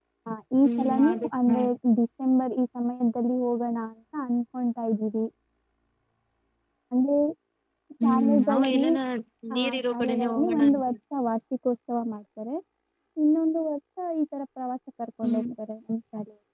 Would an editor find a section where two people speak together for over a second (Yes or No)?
Yes